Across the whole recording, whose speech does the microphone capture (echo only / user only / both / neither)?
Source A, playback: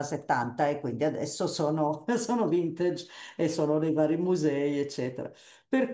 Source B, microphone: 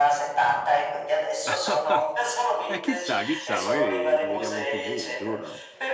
both